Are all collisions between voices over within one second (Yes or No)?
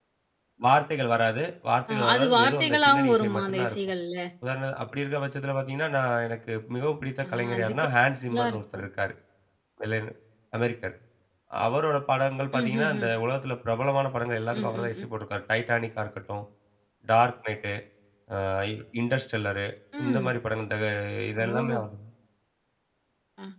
No